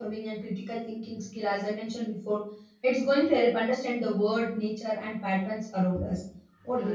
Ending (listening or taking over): taking over